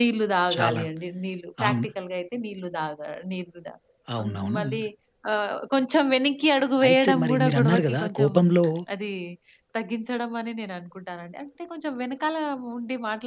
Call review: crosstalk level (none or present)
present